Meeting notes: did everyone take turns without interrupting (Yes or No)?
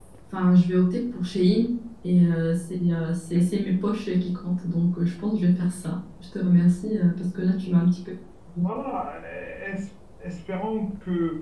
Yes